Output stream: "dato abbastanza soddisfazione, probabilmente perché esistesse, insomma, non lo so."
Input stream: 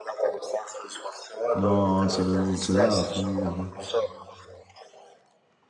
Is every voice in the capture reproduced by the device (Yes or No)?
No